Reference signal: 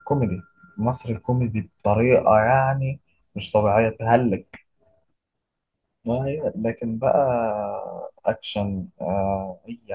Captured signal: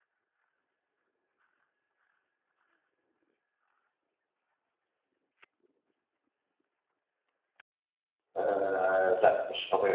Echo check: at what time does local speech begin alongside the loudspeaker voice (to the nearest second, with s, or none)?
8 s